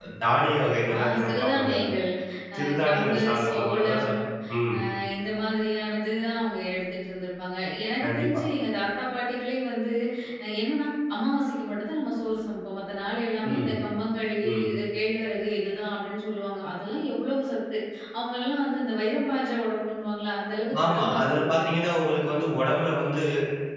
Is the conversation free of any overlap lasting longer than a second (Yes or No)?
No